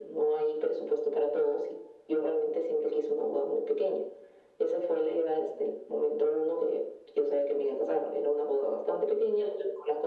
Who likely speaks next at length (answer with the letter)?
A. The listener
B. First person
B